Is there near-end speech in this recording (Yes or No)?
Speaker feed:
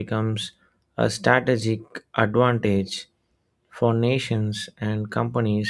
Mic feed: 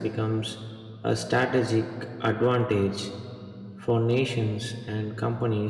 No